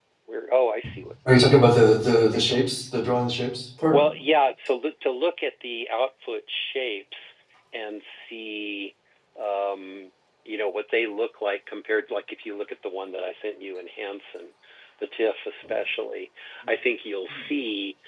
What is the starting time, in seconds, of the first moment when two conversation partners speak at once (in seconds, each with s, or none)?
1.3 s